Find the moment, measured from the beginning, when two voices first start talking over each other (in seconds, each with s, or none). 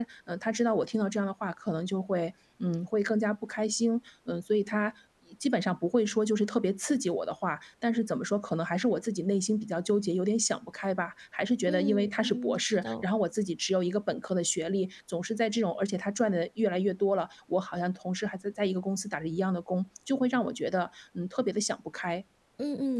11.7 s